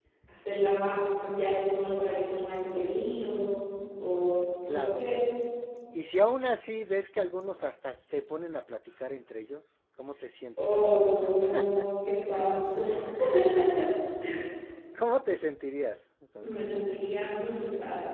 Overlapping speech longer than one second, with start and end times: none

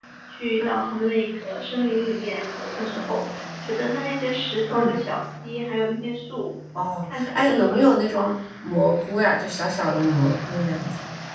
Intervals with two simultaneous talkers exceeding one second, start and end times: 7.0-8.3

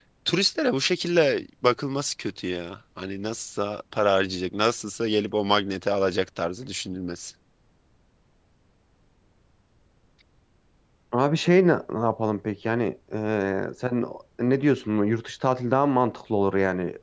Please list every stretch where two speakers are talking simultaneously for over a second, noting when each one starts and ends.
none

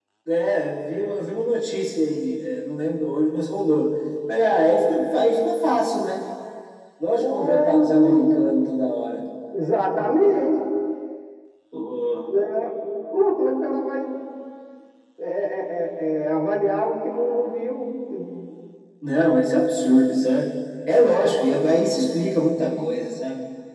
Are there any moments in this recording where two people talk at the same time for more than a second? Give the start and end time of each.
7.2-8.4

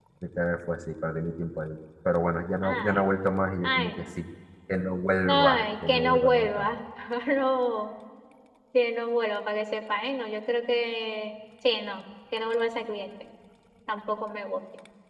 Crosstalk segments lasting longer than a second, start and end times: 5.2-6.7

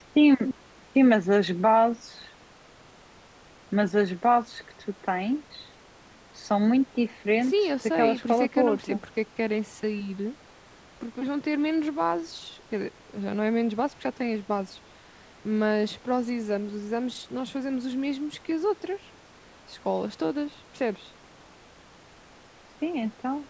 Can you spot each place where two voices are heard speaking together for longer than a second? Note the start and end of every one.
7.4-9.0

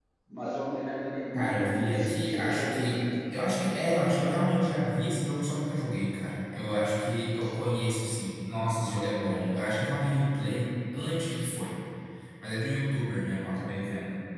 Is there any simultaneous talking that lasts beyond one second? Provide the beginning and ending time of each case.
1.3-3.0

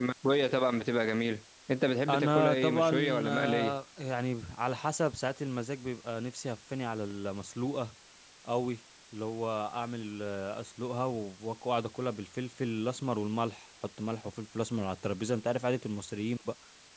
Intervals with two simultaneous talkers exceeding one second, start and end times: 2.1-3.7

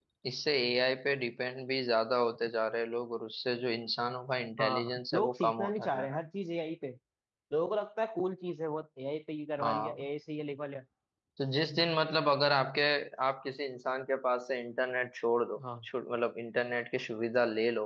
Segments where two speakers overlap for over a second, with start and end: 4.6-6.2

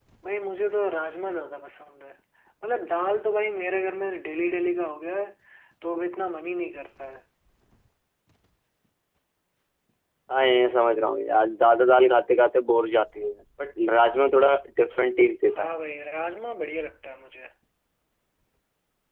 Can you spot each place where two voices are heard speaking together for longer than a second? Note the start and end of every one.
none

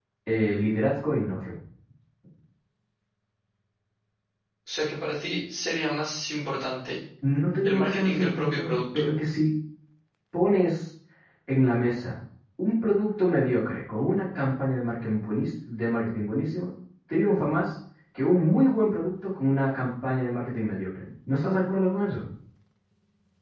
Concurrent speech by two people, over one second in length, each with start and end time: 7.6-9.1

